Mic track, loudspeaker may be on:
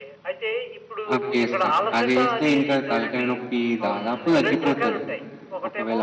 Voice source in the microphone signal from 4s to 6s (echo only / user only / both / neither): both